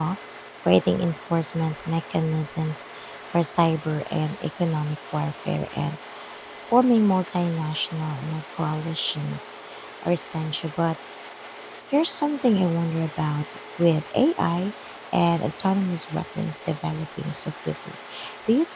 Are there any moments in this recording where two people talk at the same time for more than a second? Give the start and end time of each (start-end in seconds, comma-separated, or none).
none